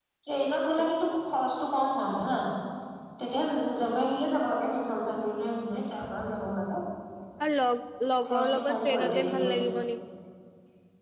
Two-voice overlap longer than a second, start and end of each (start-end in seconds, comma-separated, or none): 8.3-9.6